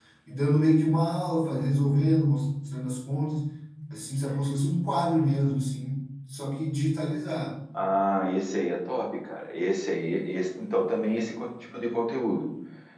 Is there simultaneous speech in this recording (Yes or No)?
No